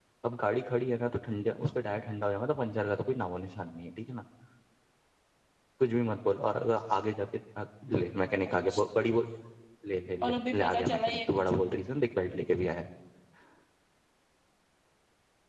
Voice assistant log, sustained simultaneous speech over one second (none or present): present